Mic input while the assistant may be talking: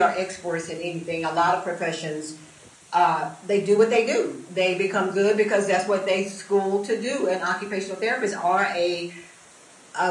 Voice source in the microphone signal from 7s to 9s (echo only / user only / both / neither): echo only